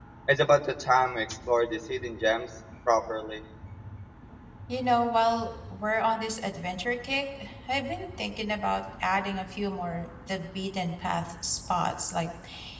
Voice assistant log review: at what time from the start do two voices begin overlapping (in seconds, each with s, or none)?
none